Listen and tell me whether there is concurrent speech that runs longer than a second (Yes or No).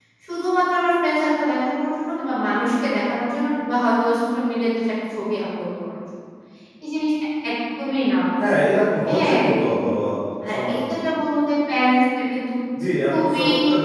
No